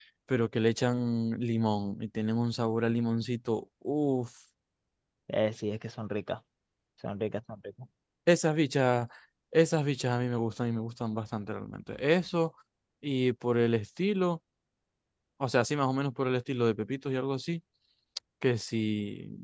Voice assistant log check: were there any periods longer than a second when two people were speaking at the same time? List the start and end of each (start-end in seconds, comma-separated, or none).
none